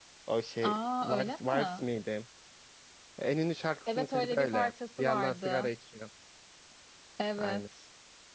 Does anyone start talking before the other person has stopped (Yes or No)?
Yes